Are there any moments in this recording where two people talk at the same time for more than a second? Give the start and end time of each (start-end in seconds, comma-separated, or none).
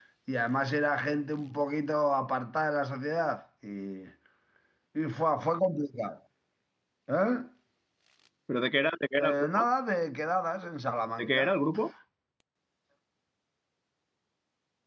none